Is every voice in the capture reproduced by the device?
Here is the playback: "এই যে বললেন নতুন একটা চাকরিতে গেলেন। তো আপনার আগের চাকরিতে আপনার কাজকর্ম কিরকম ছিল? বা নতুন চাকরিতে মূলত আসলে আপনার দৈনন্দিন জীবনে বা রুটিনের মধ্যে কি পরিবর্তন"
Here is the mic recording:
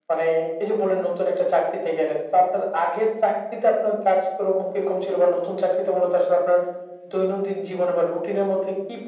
Yes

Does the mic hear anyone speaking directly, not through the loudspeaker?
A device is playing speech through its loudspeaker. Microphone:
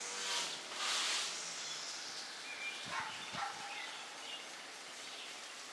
No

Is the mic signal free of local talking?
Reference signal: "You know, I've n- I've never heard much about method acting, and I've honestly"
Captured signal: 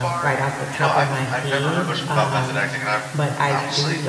No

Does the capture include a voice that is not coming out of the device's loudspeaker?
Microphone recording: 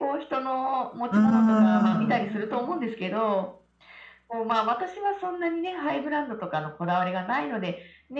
Yes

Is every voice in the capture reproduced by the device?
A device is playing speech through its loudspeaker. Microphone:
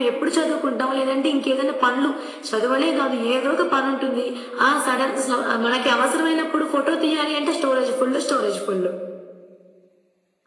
Yes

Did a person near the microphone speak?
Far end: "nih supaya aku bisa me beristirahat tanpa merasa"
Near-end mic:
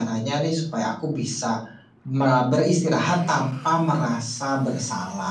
No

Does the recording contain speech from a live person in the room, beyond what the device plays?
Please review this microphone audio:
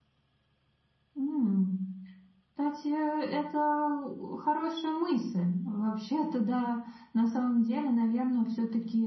Yes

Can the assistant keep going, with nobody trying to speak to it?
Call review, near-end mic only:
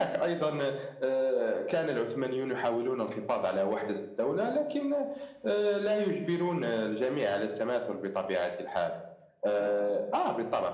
Yes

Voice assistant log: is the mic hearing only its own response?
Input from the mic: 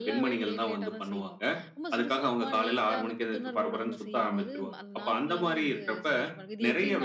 No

